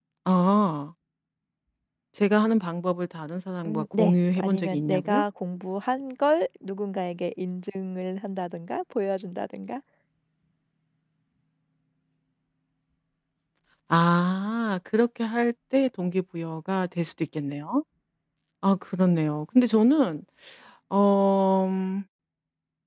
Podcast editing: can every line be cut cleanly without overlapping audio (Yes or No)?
No